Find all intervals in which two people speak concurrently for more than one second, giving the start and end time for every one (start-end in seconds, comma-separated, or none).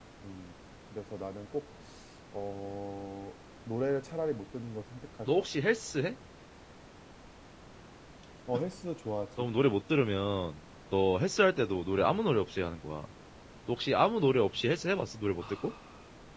none